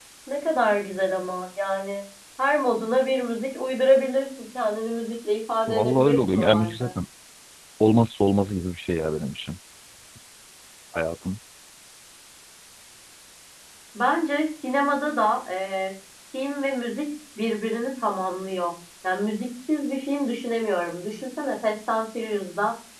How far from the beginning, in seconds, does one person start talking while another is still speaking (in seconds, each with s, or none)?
5.7 s